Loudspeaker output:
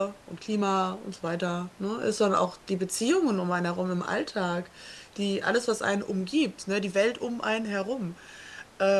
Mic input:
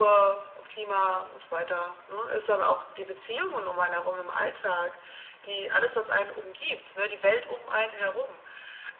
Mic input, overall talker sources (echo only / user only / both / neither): echo only